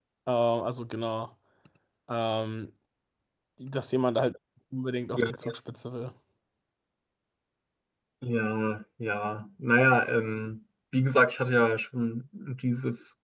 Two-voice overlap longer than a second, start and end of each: none

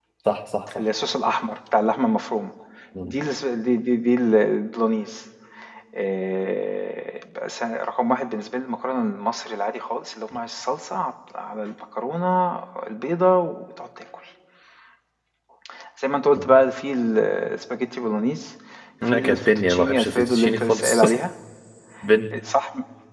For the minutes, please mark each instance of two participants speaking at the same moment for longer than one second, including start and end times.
19.1-21.0

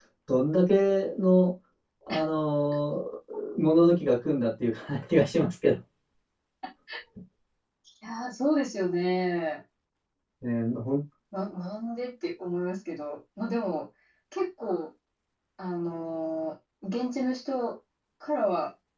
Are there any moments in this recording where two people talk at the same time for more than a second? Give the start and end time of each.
none

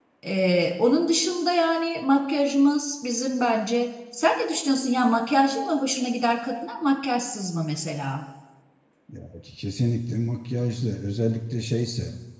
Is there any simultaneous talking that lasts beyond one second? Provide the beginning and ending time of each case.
none

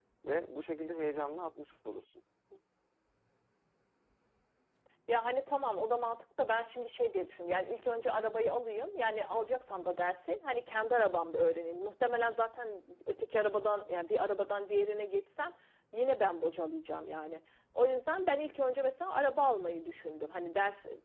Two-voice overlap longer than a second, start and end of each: none

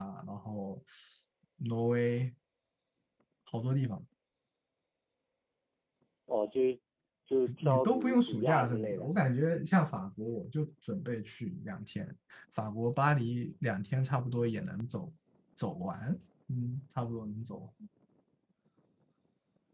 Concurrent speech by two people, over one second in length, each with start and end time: 7.6-9.1

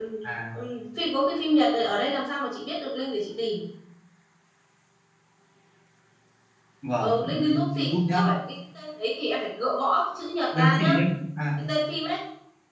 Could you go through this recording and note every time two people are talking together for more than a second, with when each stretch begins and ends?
7.0-8.3

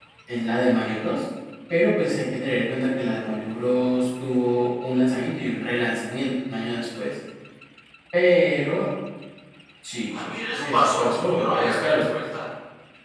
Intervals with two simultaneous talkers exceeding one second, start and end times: 10.1-12.0

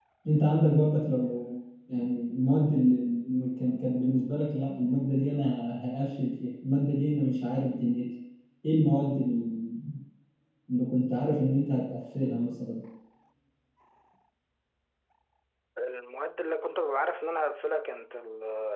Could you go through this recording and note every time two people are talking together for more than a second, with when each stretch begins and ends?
none

